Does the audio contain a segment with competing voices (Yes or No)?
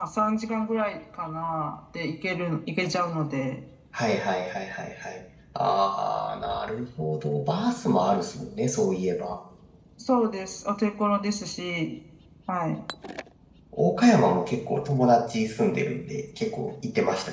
No